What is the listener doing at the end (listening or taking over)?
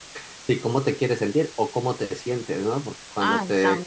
listening